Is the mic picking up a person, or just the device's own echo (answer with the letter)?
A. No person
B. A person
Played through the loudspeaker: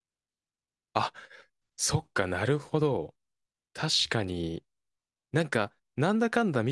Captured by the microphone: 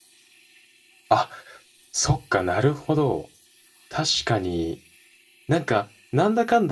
A